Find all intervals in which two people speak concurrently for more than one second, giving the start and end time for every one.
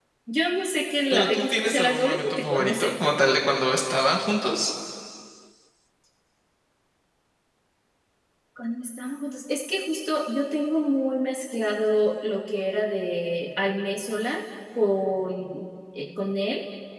1.1-2.9

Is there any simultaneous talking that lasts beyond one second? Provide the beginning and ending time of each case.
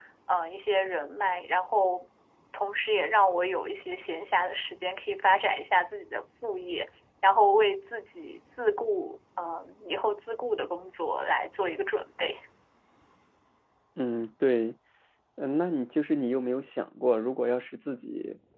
none

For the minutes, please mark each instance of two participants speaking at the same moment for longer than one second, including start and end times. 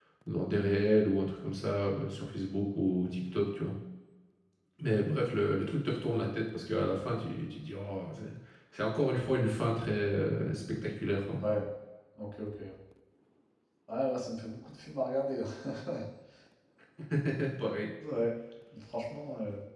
none

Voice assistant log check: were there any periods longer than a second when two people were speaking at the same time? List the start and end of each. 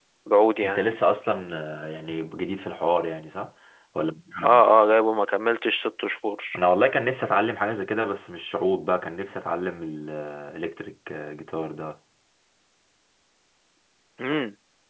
none

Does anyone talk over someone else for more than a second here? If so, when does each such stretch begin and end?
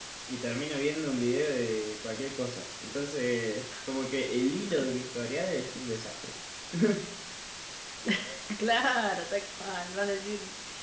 none

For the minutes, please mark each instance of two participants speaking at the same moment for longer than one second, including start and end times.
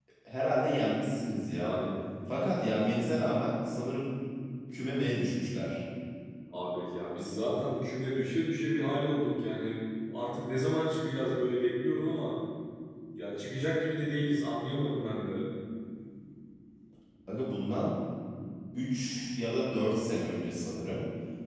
none

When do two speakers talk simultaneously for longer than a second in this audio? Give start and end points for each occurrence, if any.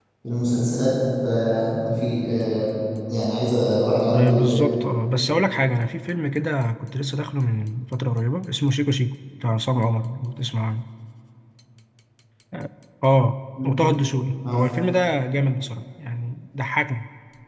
none

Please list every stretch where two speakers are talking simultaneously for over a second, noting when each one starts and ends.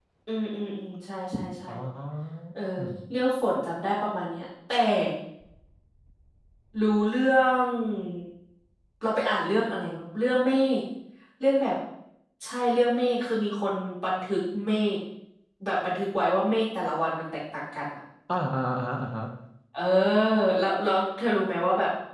none

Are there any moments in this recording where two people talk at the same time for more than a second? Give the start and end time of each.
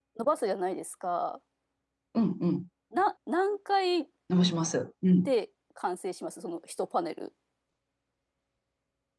none

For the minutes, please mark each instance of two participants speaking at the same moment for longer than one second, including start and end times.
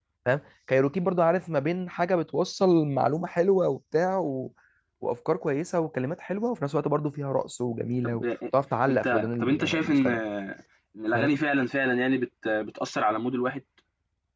8.9-10.1

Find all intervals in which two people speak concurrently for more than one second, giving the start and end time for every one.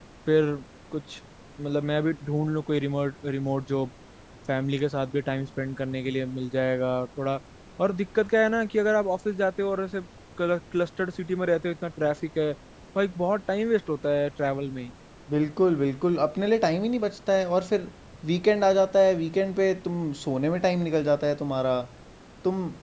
none

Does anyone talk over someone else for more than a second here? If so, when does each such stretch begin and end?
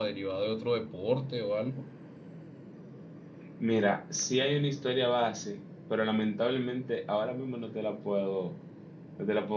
none

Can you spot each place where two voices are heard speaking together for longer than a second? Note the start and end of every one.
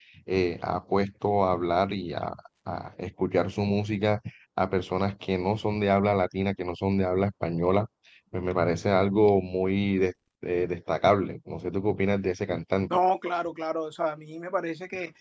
none

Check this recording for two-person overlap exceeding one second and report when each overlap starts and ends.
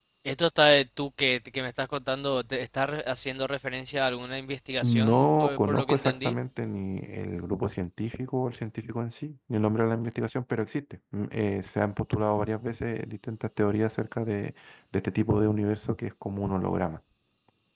4.8-6.3

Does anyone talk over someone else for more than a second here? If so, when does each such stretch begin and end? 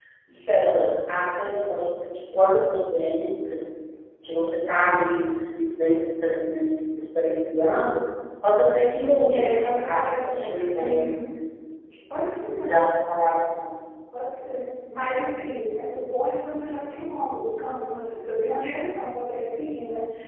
9.9-11.1

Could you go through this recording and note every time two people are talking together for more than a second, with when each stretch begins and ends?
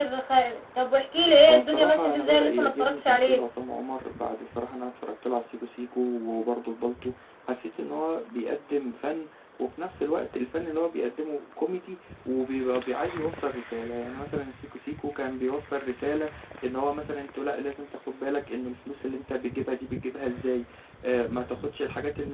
1.5-3.4

